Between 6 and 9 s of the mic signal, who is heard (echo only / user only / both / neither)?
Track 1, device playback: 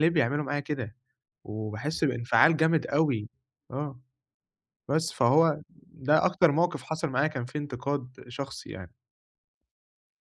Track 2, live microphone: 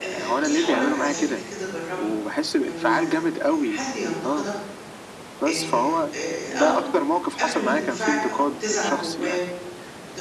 both